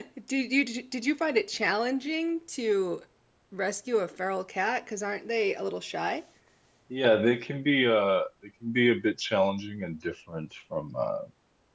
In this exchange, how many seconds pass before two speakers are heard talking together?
none

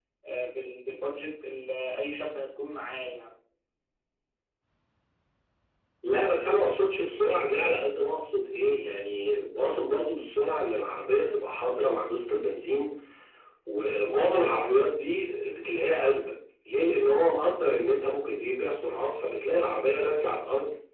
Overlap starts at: none

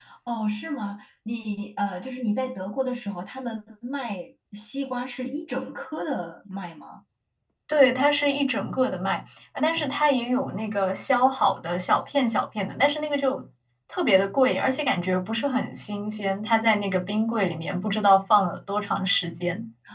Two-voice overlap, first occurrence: none

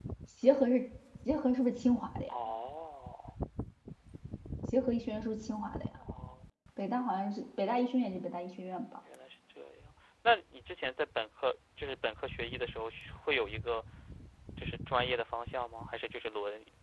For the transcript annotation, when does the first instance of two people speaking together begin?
none

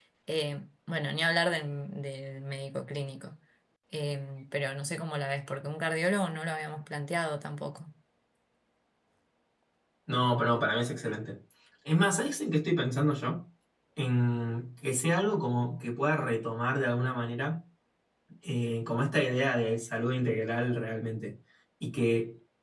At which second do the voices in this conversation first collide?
none

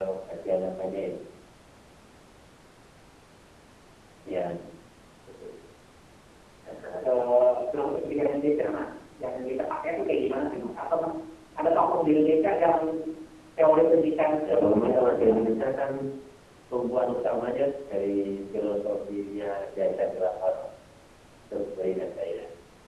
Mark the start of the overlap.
14.4 s

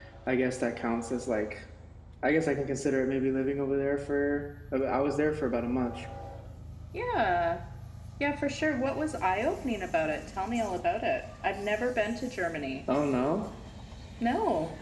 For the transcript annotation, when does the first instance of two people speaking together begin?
none

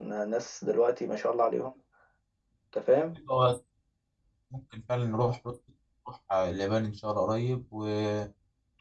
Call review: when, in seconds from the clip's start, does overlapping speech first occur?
none

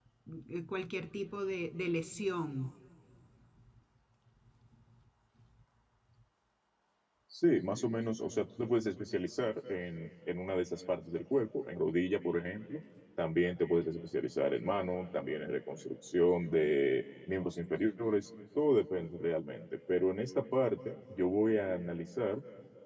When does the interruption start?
none

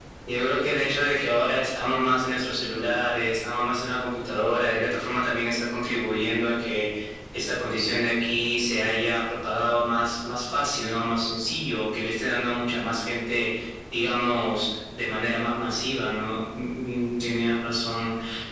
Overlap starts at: none

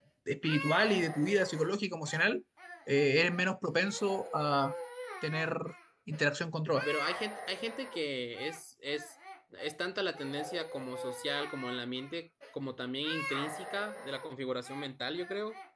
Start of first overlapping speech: none

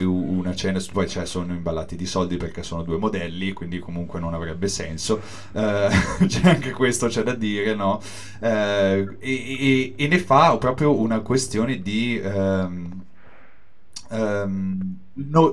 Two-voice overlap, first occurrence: none

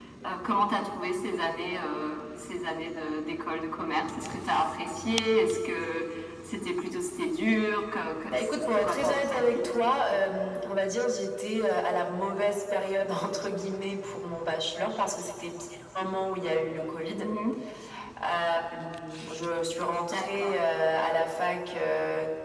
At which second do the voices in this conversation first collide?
8.3 s

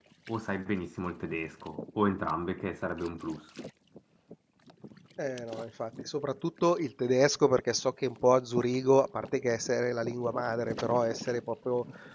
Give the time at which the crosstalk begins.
none

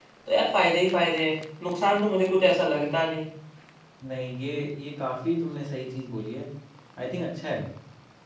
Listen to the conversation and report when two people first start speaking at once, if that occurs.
none

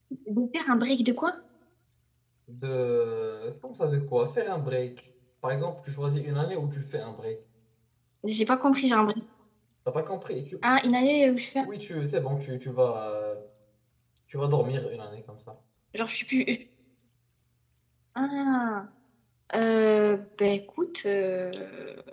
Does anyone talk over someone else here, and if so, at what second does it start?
none

